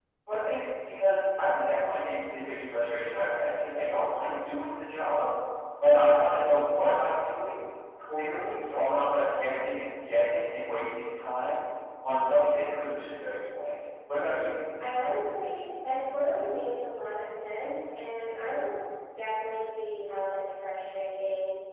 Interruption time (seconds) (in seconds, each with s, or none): none